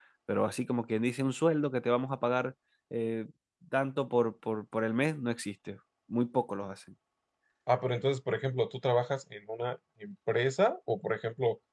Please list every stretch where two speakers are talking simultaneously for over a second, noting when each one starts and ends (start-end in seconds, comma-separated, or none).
none